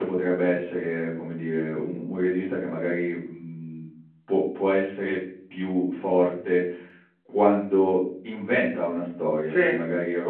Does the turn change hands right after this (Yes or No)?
No